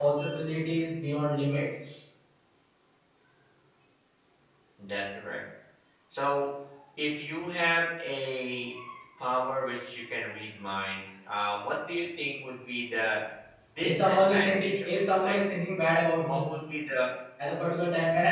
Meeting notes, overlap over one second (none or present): present